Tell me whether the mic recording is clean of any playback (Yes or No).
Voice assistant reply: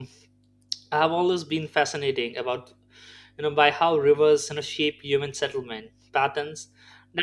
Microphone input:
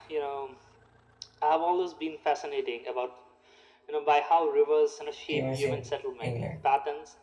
No